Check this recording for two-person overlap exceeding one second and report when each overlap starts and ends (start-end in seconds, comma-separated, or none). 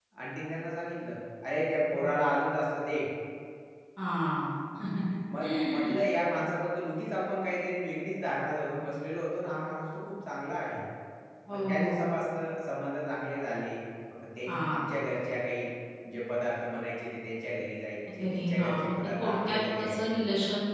18.2-20.2